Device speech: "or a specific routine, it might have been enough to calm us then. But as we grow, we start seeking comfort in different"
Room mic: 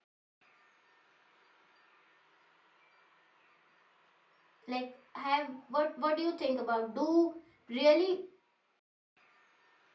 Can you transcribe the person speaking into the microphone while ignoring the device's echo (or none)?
like have what what do you think about do really